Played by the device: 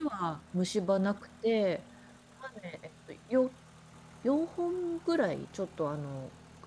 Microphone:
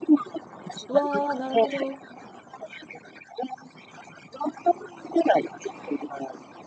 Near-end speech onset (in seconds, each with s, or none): 0.9 s